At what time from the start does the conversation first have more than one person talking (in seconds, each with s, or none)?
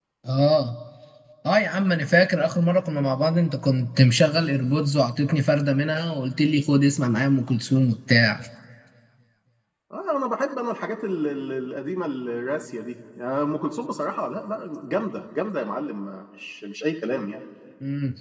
none